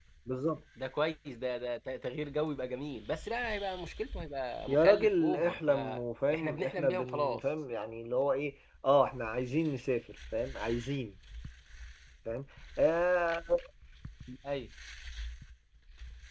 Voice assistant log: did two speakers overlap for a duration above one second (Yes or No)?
Yes